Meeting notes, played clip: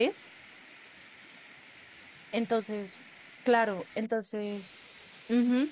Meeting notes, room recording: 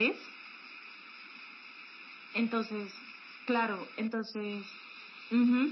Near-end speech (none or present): none